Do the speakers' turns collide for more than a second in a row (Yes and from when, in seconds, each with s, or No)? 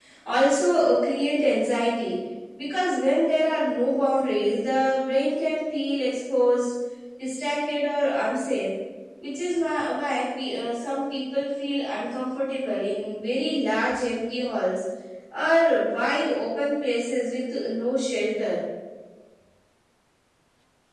No